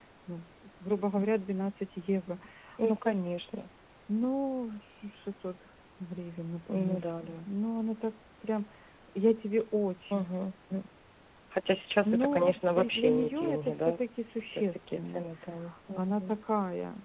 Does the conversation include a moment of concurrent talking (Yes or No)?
Yes